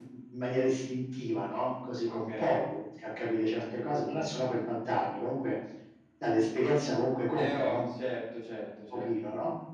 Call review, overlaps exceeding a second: none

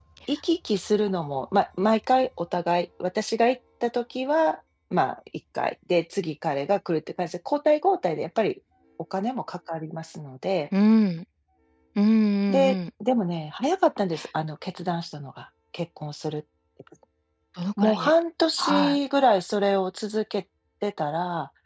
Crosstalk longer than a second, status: none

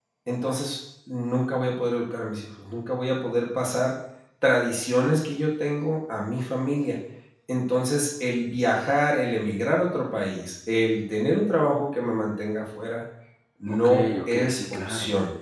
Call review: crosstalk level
present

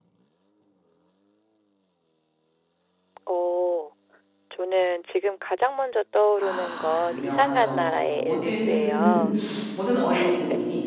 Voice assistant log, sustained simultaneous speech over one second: present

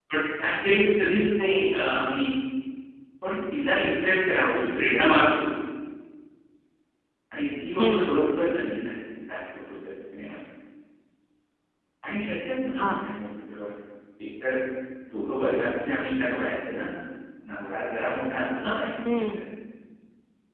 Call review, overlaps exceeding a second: none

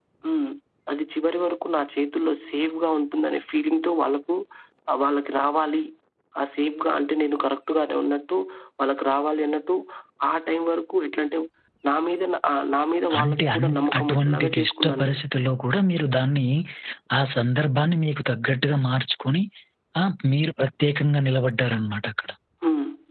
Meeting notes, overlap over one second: present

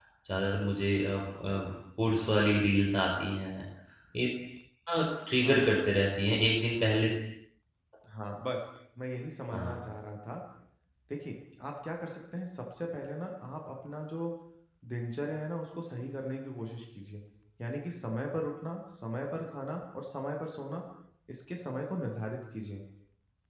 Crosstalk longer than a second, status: none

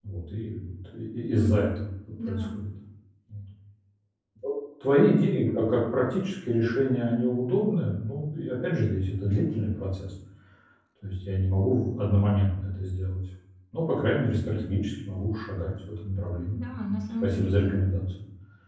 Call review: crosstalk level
present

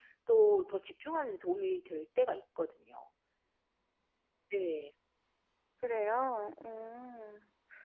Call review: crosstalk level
none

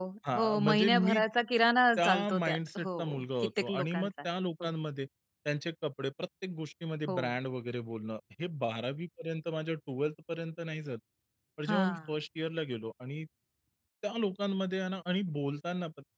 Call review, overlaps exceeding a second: present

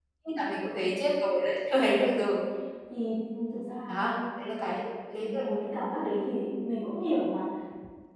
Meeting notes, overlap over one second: none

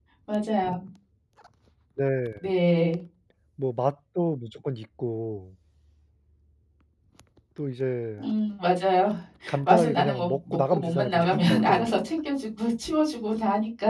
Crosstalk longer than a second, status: present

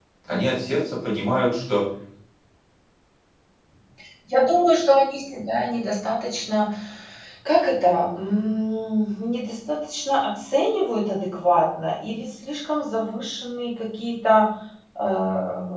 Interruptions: none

